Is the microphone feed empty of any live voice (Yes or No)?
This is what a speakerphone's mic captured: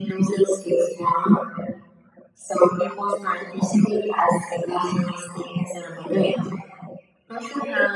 Yes